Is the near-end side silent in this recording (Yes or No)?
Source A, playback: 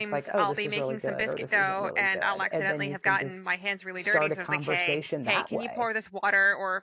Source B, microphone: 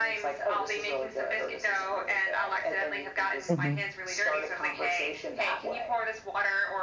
No